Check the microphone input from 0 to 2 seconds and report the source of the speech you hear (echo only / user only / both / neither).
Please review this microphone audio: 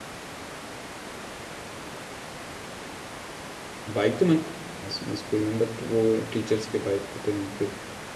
neither